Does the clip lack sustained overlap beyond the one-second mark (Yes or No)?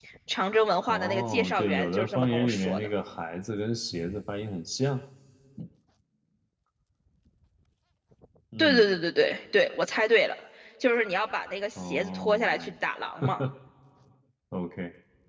No